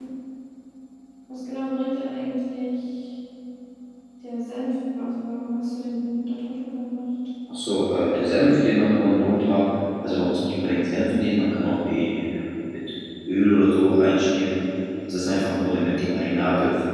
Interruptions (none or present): none